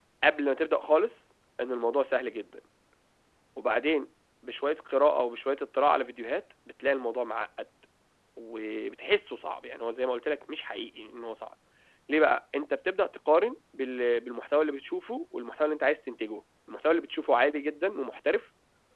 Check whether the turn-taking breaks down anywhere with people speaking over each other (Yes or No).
No